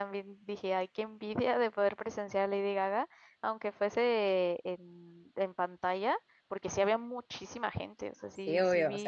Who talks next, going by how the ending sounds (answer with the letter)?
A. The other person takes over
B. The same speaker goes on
A